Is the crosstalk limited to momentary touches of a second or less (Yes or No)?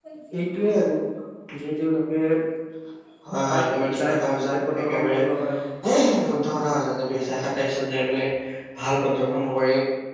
No